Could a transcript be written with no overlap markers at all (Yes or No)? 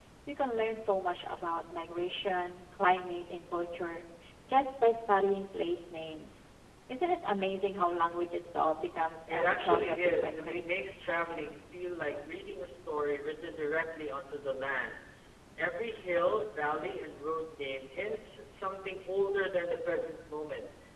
No